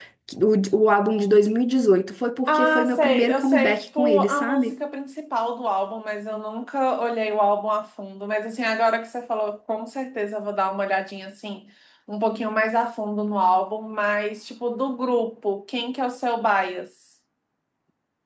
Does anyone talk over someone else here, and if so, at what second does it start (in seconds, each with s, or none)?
2.5 s